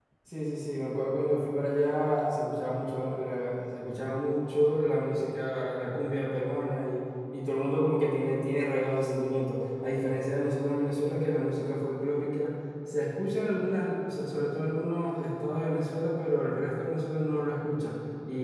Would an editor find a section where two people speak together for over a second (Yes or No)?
No